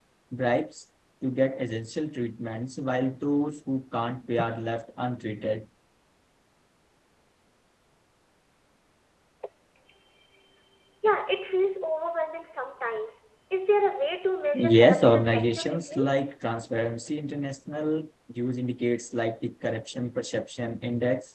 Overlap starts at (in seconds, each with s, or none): 14.5 s